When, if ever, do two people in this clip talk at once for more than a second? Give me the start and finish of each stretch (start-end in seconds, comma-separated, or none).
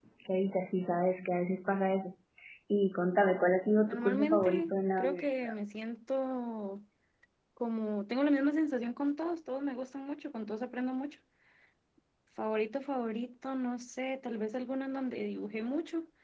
3.9-5.5